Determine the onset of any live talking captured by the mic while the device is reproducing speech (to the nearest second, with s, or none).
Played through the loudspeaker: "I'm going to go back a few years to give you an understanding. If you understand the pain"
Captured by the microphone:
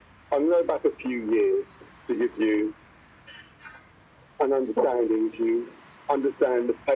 none